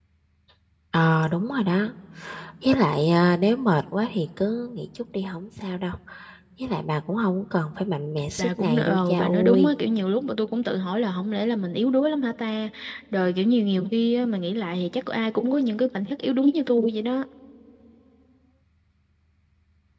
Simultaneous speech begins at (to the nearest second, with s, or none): 8 s